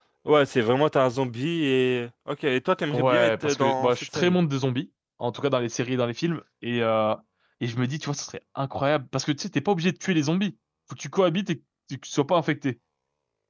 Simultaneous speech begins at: 2.9 s

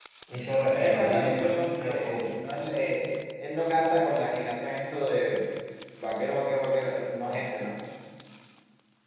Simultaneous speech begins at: 0.7 s

